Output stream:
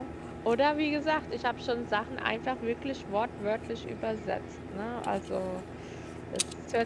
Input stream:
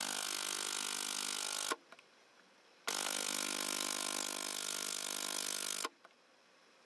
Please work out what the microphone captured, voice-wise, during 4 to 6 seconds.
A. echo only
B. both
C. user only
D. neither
D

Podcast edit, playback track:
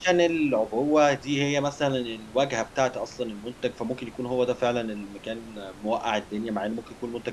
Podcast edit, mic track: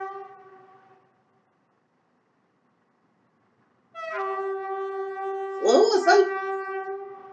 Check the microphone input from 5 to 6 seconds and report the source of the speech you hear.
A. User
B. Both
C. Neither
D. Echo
A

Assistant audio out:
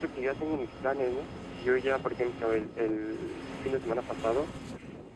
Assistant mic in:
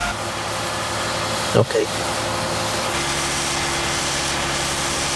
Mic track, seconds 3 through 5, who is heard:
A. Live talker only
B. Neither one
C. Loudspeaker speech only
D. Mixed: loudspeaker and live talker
B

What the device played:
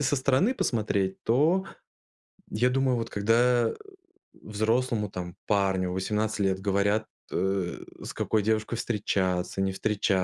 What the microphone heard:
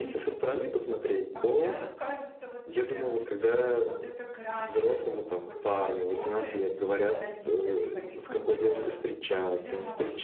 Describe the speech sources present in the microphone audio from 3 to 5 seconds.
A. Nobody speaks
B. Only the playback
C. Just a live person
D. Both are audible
D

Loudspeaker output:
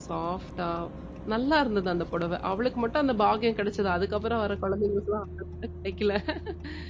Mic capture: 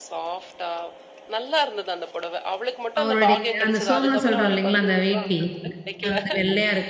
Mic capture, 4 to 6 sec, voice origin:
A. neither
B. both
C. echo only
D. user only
B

